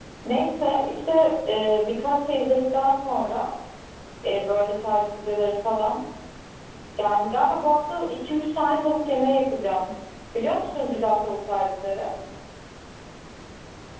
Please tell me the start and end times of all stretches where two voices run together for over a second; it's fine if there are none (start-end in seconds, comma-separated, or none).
none